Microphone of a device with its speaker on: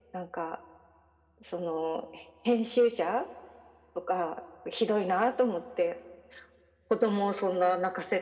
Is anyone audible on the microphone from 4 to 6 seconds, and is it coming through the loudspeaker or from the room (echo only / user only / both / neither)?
echo only